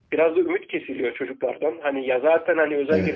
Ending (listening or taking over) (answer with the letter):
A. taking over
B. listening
B